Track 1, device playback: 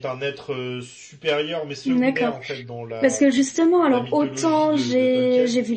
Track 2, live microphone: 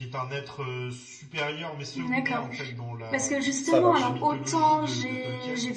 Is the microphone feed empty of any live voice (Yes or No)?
No